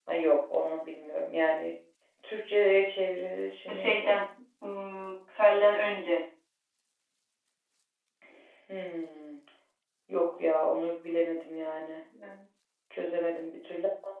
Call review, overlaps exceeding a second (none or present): none